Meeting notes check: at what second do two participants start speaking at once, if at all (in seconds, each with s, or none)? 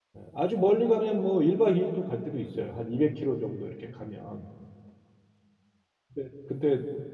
none